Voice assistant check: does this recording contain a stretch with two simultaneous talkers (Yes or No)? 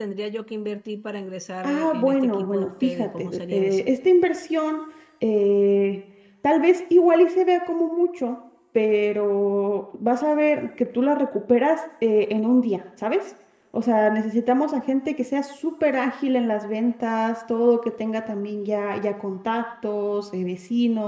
Yes